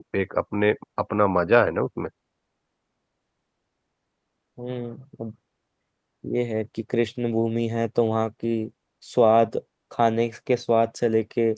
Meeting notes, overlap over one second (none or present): none